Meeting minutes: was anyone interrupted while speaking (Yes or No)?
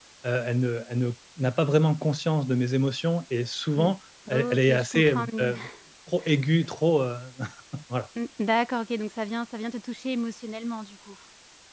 Yes